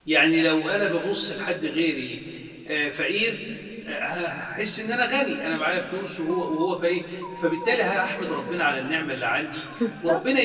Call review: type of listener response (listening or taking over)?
listening